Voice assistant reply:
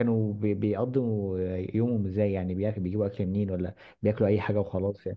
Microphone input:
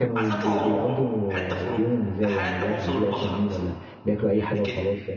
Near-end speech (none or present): present